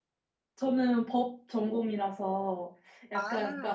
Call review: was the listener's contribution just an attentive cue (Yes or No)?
Yes